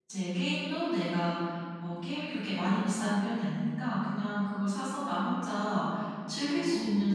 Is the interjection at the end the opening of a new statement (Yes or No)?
No